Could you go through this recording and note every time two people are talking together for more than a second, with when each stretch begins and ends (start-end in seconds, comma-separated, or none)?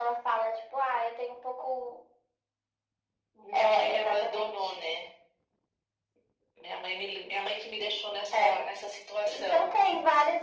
3.5-4.8